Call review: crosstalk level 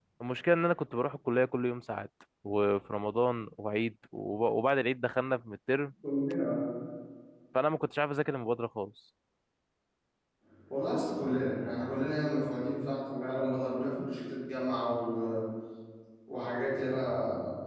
none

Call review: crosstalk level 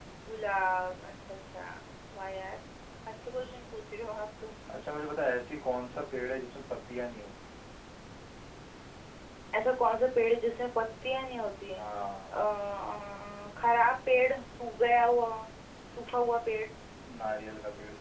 none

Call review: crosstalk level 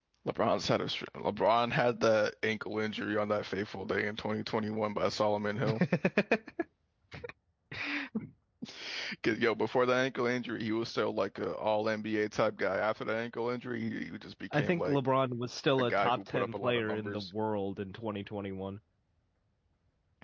present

